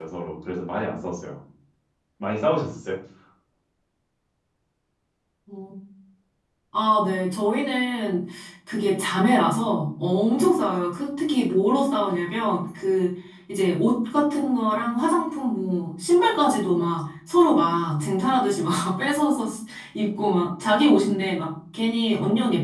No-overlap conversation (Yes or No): Yes